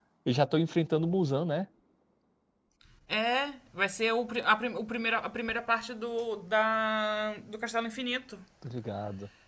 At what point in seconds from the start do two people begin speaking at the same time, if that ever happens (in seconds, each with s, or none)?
none